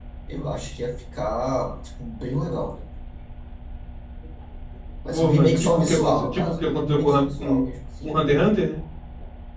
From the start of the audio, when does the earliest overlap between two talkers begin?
5.1 s

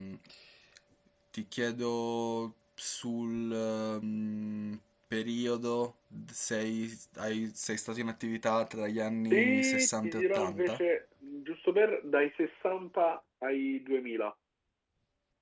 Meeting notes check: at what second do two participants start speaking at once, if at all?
9.3 s

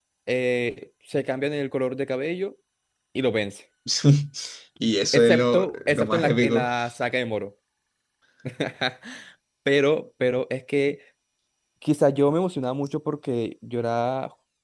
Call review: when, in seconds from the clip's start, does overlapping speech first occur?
5.1 s

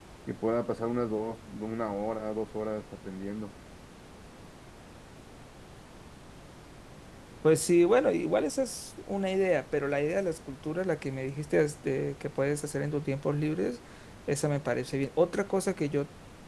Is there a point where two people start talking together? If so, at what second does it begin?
none

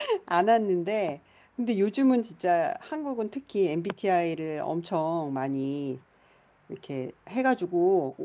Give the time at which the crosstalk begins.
none

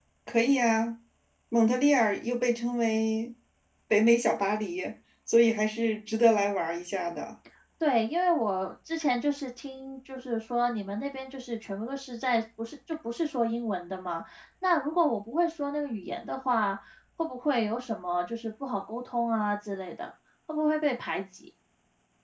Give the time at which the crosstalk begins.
none

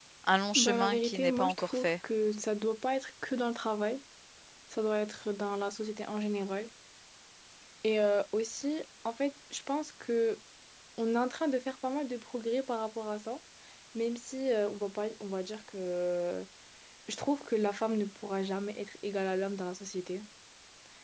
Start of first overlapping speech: 0.6 s

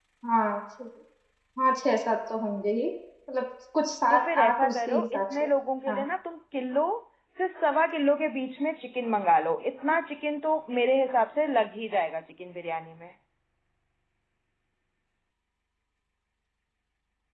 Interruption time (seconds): 4.1 s

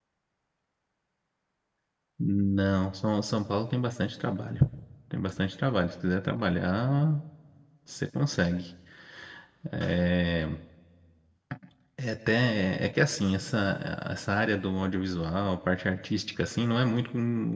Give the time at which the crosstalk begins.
none

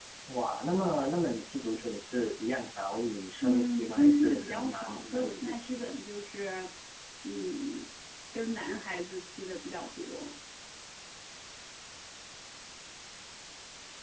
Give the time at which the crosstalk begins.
3.4 s

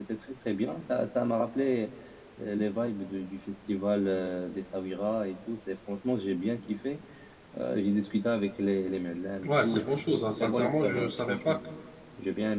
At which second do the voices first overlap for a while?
9.4 s

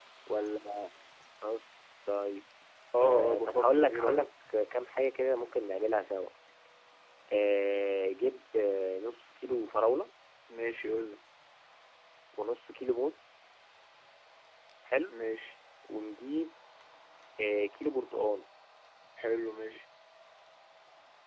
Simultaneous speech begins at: 3.0 s

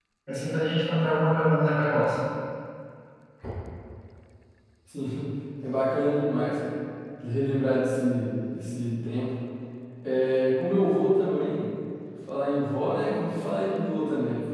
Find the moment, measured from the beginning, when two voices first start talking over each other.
none

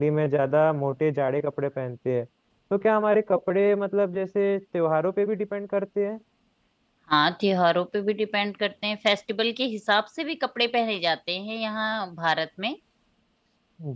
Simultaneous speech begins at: none

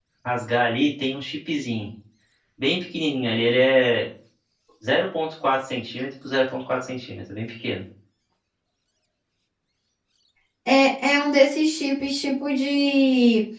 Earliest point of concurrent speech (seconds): none

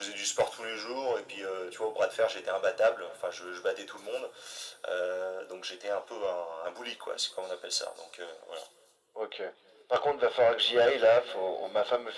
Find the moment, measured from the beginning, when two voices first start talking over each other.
none

